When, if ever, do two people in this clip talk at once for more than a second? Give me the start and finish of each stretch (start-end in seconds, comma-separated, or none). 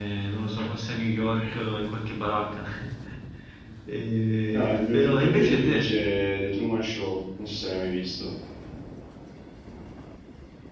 4.5-5.9